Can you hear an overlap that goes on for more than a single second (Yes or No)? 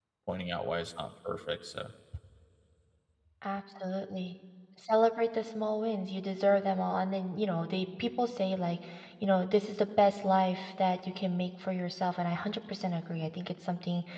No